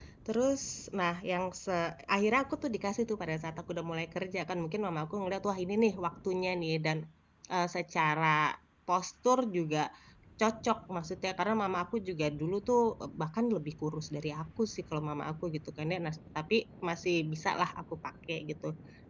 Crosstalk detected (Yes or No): No